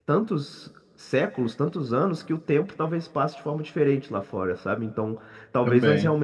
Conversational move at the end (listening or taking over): listening